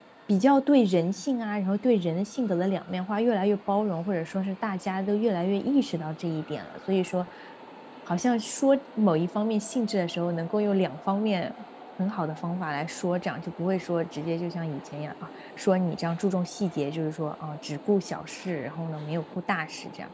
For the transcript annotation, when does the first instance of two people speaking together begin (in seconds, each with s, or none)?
none